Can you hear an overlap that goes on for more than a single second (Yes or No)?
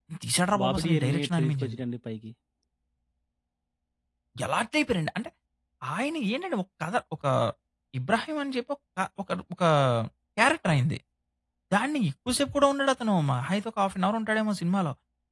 Yes